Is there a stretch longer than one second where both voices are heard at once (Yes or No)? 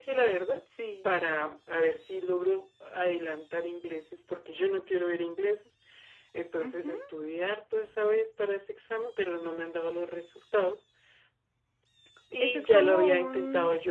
Yes